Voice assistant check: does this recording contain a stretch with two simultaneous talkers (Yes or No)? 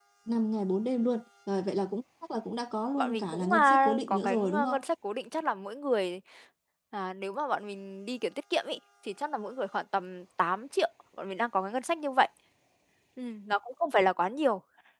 Yes